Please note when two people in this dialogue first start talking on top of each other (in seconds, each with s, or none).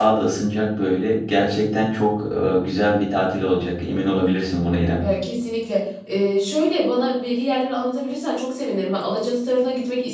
none